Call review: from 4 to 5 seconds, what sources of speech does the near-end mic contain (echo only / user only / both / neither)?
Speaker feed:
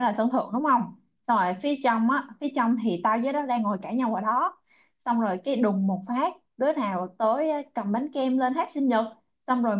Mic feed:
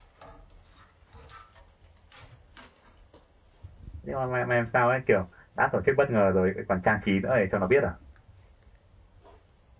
user only